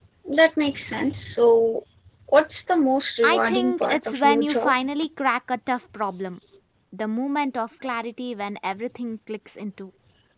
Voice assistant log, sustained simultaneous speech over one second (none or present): present